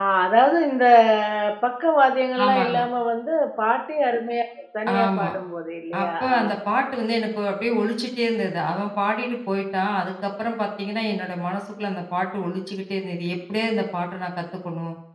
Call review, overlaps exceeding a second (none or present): none